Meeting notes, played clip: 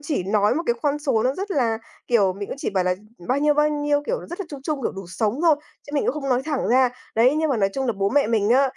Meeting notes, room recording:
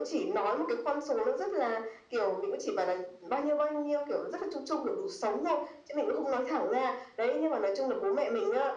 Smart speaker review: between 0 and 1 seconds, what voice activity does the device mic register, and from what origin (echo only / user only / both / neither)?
echo only